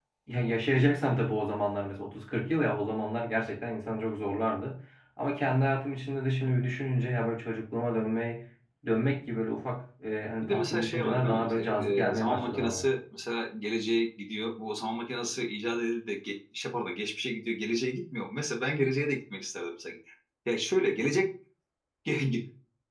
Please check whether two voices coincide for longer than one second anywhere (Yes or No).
Yes